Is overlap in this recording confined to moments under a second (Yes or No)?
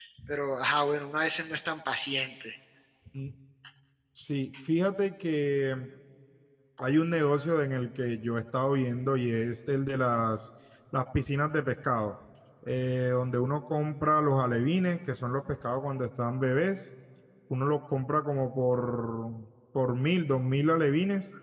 Yes